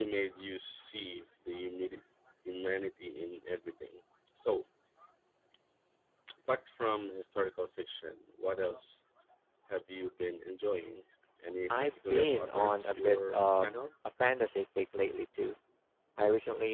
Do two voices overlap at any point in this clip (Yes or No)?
Yes